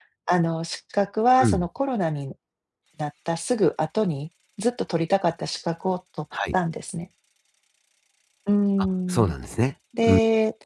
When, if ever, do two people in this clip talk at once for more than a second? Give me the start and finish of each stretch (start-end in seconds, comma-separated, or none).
none